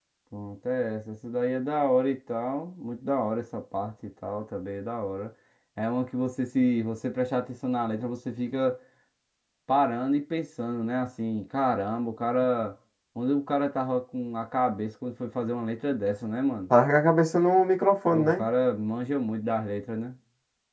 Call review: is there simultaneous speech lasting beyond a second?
No

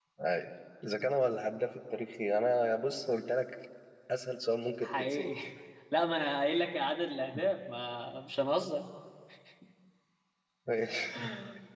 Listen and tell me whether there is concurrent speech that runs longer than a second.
No

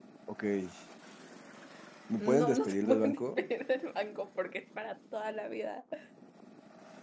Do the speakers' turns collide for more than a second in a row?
Yes, from 2.2 s

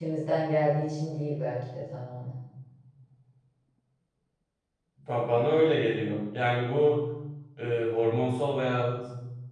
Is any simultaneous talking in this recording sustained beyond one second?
No

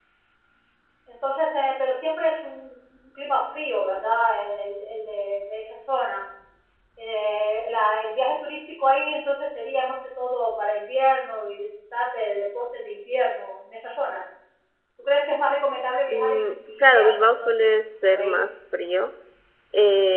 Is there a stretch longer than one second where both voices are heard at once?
Yes, from 16.1 s

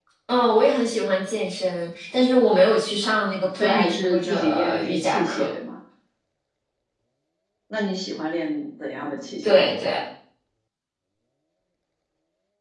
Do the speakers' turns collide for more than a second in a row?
Yes, from 3.6 s

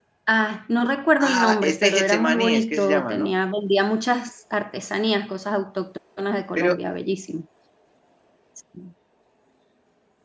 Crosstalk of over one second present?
Yes, from 1.2 s

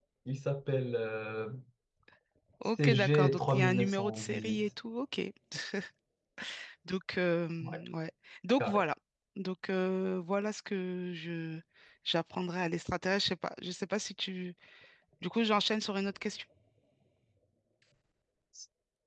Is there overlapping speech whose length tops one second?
Yes, from 2.8 s

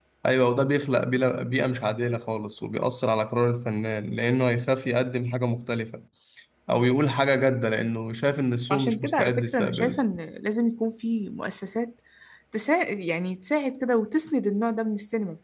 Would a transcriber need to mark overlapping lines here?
Yes, from 8.7 s

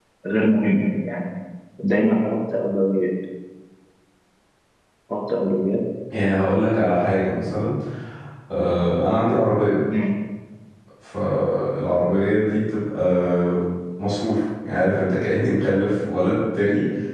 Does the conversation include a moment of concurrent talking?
No

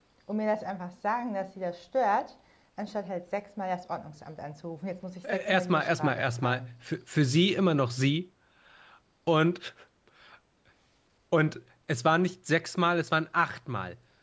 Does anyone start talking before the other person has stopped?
Yes, from 5.2 s

